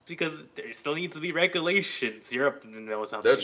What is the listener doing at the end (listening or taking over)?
taking over